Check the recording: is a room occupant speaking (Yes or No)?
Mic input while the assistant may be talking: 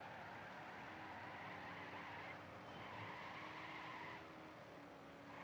No